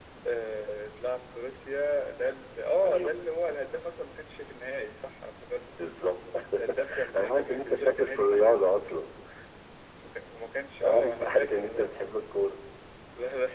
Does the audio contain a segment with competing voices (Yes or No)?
Yes